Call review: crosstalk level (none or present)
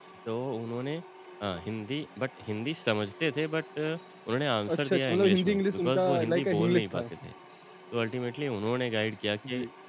present